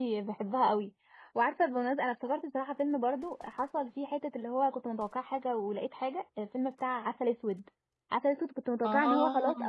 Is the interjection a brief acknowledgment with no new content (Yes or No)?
Yes